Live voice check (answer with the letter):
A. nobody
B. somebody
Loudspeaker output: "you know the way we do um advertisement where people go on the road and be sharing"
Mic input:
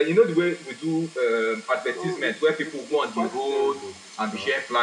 B